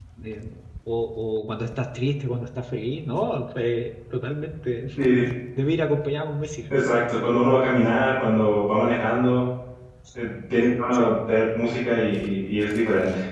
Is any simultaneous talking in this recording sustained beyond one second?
No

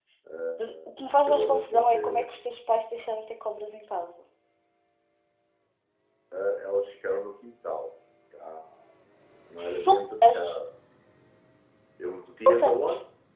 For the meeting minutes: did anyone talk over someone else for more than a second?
Yes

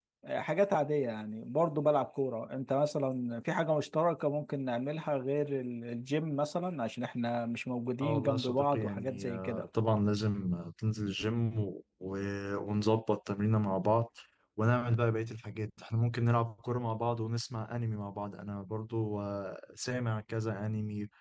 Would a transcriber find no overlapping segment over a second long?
No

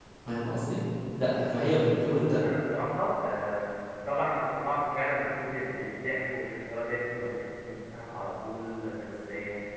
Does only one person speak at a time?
Yes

